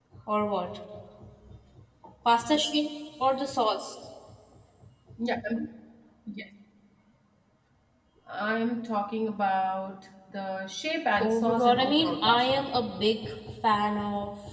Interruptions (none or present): present